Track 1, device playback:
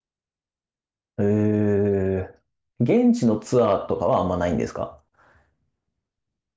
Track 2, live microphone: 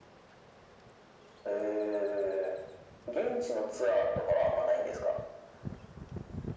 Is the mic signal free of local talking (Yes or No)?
Yes